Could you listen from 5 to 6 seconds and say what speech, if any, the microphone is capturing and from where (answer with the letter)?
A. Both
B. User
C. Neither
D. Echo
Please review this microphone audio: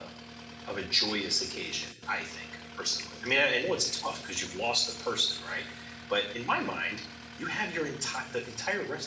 B